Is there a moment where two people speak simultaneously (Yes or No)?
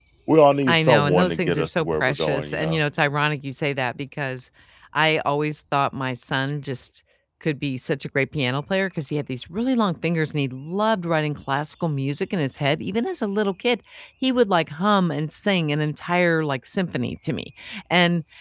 Yes